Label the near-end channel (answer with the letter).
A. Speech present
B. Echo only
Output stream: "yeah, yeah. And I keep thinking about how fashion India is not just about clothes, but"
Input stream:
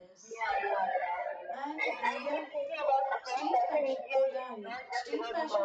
A